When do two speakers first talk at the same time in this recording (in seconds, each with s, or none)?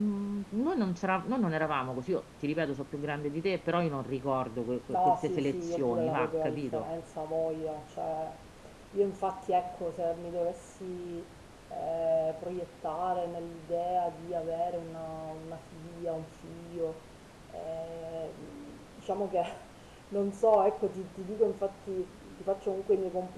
4.9 s